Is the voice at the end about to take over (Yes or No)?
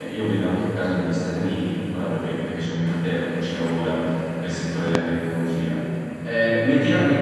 No